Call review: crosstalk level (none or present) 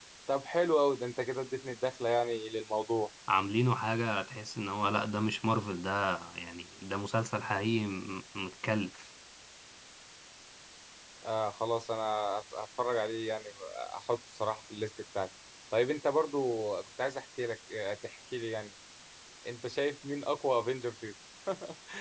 none